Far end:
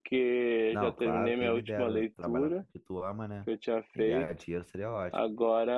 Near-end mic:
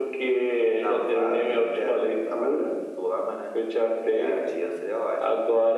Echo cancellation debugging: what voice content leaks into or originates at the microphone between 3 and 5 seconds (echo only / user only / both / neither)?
echo only